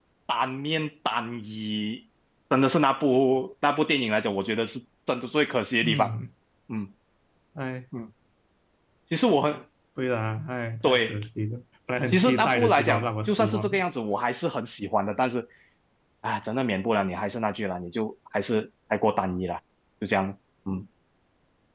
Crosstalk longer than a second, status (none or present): present